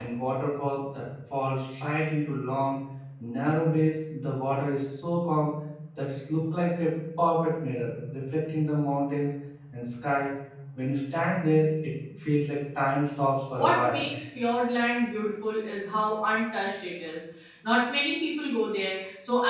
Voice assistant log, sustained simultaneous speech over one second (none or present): none